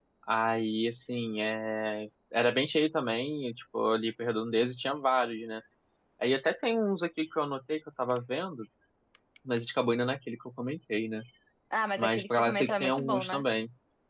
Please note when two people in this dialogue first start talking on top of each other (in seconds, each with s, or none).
12.0 s